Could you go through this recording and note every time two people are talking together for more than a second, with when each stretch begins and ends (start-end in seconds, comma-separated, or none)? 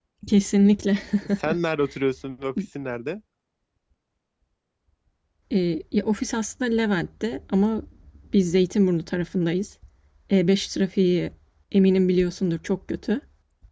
none